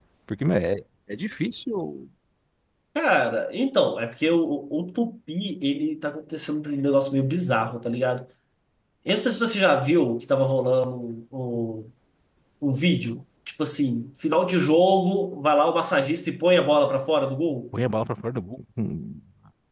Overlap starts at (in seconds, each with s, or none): none